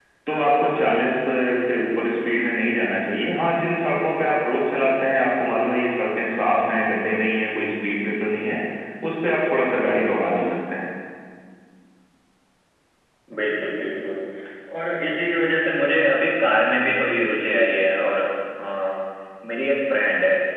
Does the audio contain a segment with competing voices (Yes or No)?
No